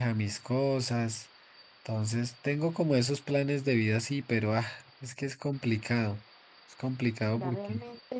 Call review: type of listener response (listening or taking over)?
taking over